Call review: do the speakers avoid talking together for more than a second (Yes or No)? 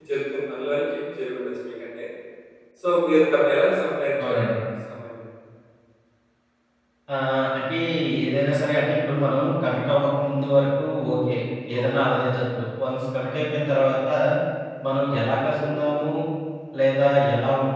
Yes